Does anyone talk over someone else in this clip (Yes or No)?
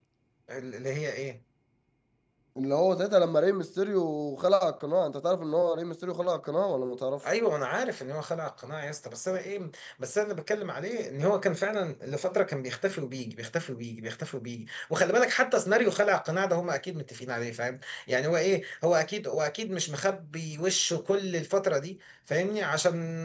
No